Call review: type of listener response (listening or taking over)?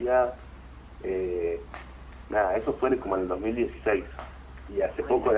listening